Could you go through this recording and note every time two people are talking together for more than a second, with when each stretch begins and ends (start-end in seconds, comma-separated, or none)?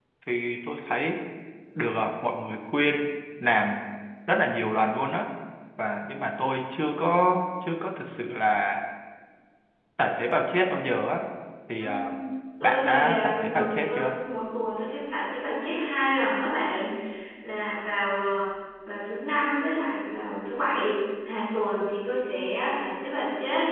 12.6-14.1